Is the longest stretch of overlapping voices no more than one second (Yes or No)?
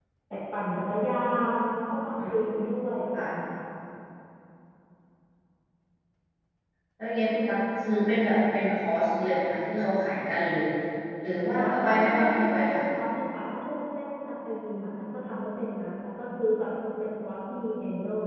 No